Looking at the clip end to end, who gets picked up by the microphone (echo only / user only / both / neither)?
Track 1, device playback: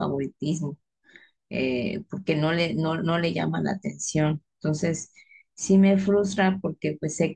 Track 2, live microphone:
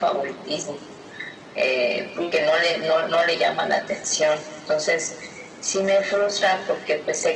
both